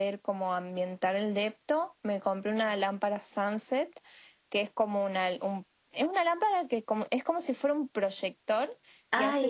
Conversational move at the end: taking over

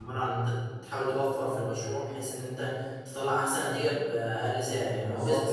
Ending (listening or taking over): taking over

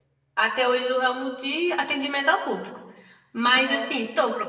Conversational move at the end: listening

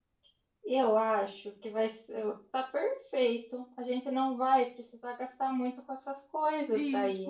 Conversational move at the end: taking over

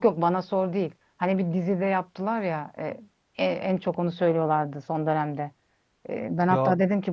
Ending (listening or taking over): listening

